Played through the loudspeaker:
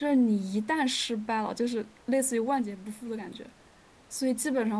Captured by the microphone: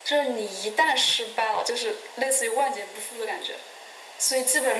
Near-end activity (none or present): none